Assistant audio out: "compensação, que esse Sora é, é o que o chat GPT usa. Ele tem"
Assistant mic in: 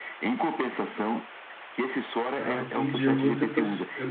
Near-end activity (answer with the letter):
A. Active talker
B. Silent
A